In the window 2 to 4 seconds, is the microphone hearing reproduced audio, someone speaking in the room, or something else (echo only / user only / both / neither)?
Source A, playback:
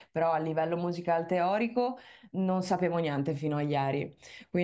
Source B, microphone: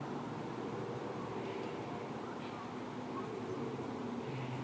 neither